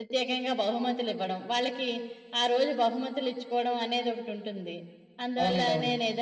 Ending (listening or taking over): listening